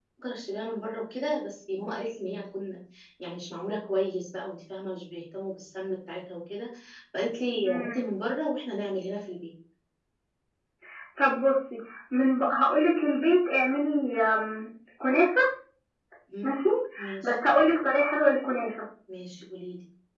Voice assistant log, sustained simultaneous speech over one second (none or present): none